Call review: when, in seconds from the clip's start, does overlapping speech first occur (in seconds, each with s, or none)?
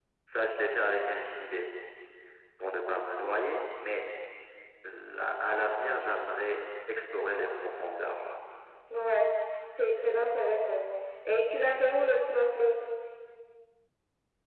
none